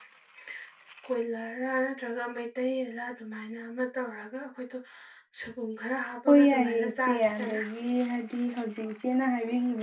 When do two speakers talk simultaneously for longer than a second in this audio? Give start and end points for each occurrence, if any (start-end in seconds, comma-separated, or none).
6.3-7.6